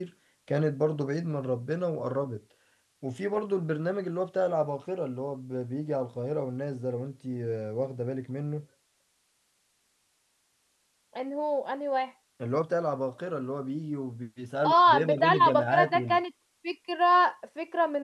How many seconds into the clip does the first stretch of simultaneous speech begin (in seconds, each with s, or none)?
14.6 s